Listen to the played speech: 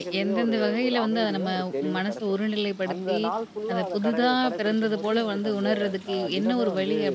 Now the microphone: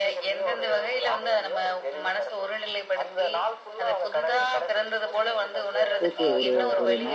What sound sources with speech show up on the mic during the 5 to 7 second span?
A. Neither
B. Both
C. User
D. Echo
B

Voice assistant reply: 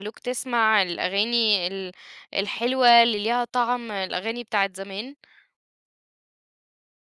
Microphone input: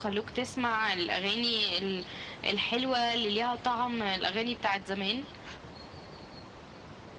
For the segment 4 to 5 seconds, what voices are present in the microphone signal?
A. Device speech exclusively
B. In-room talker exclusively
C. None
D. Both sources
A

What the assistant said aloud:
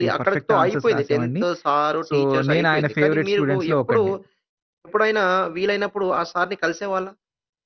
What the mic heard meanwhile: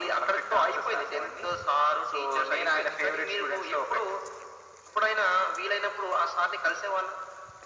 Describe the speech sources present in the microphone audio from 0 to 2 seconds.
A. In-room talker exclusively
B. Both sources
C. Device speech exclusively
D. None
C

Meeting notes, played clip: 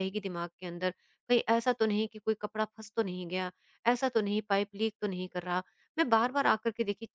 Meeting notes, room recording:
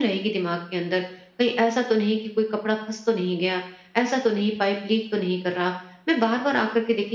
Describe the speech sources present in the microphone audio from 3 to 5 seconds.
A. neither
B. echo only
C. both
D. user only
B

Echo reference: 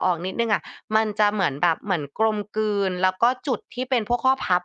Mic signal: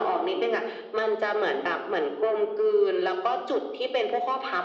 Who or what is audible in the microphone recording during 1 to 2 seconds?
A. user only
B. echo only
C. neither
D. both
B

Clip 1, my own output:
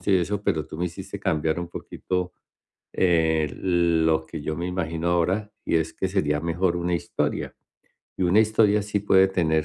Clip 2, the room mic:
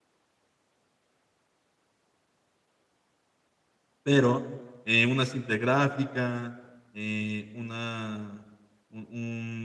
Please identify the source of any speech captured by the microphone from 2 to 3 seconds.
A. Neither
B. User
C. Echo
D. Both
A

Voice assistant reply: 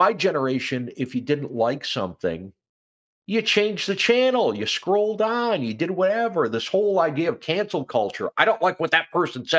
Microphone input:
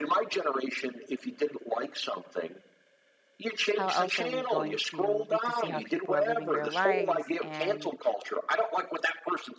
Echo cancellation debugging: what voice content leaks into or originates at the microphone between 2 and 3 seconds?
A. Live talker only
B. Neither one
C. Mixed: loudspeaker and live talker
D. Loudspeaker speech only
D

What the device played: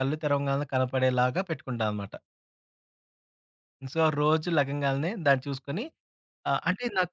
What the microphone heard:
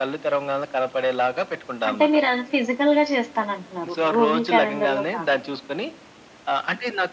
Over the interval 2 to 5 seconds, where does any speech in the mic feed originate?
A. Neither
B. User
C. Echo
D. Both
D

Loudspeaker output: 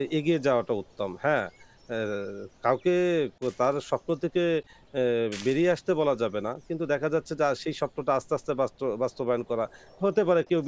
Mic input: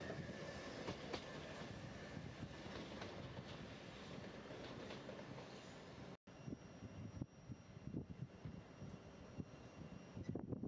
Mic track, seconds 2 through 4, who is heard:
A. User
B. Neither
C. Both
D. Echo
B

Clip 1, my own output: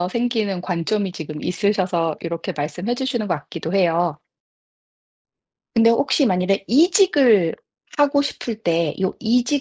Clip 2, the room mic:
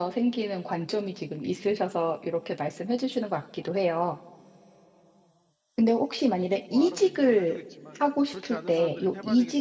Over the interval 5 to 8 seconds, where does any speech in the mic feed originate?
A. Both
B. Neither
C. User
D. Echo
A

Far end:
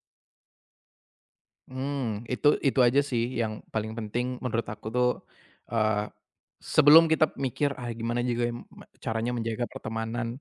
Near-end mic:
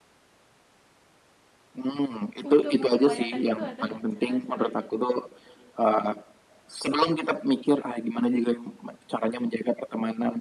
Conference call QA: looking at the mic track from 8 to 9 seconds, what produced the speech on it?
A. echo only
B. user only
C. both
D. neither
A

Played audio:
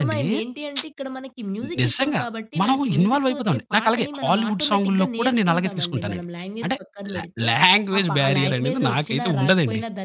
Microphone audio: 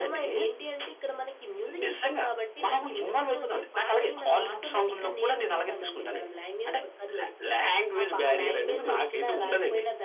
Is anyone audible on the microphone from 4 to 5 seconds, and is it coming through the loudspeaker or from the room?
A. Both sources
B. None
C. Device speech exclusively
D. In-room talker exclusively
C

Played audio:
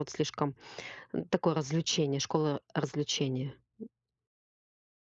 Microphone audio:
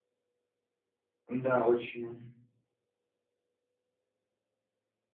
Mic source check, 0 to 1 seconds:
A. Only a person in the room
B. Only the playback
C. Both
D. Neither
D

